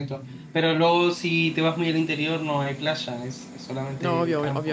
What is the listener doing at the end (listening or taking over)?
taking over